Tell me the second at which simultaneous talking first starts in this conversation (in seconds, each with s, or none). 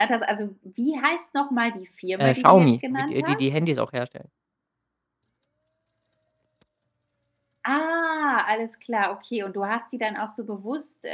2.2 s